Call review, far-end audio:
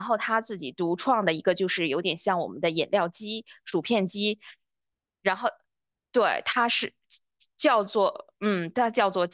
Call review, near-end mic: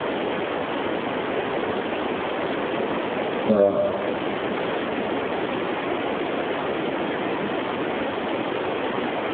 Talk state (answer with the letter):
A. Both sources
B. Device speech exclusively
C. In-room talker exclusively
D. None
C